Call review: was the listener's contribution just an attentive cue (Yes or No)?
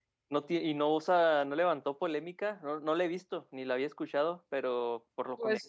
No